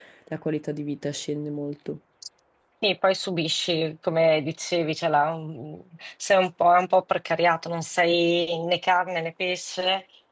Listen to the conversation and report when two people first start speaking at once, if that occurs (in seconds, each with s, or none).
none